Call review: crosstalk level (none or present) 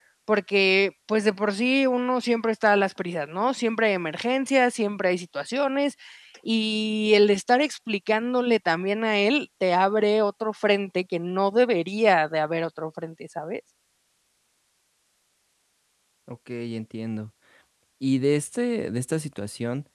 none